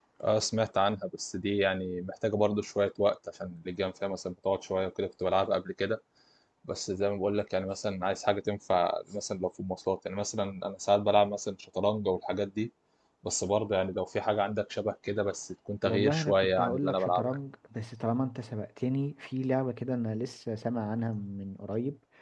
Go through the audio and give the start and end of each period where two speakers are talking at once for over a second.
15.8-17.4

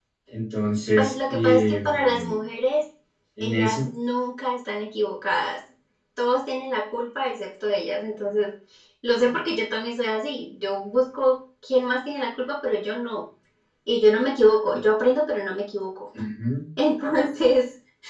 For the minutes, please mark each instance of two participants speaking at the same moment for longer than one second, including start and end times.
1.0-2.4

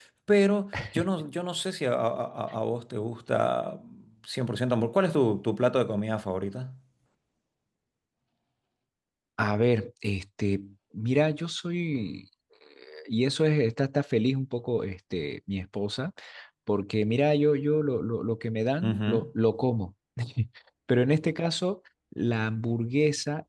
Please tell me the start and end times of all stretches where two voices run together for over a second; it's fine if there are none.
none

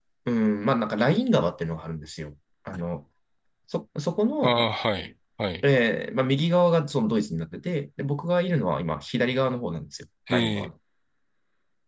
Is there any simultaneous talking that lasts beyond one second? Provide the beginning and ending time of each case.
none

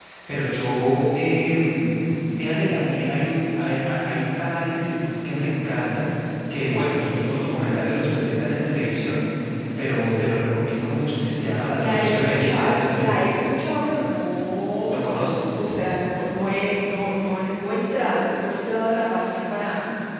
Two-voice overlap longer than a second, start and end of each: 11.8-13.2

